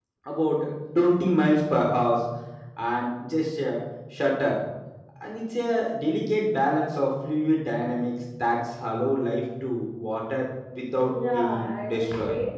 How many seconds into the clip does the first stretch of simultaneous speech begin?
11.0 s

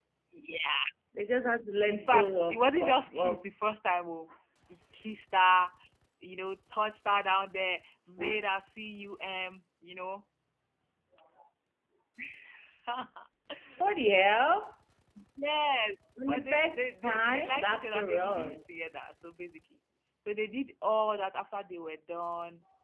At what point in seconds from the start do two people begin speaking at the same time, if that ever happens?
1.9 s

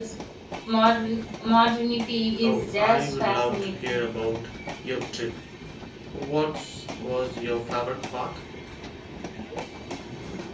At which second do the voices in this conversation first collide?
2.4 s

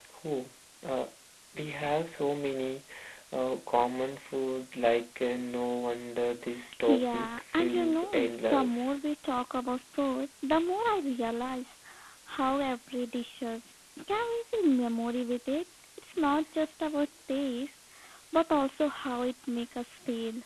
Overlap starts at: 6.8 s

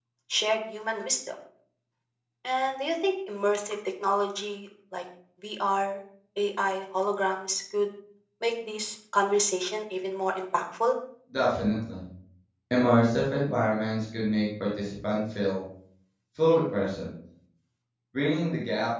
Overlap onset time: none

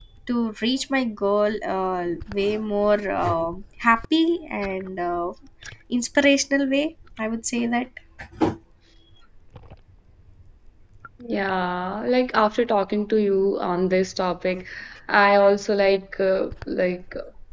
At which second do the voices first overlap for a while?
none

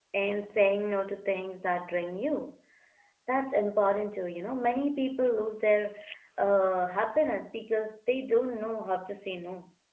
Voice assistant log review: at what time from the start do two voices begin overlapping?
none

